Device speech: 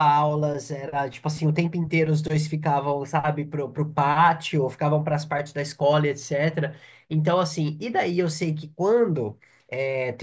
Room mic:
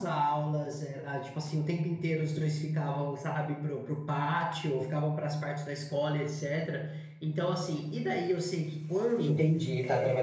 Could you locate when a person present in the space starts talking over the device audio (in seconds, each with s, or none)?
9.2 s